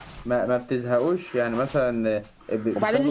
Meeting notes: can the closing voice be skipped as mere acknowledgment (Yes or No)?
No